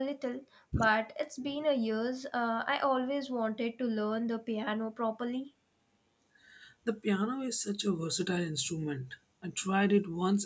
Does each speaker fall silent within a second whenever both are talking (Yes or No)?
Yes